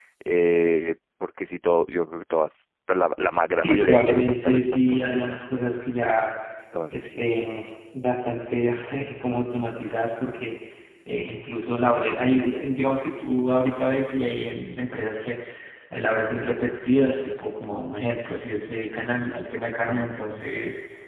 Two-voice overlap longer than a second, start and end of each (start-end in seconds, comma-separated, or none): 3.6-5.4